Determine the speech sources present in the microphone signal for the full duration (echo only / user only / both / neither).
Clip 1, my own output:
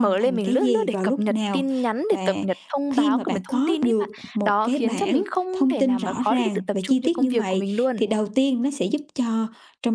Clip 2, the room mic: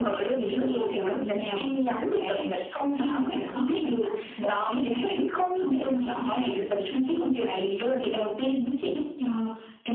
echo only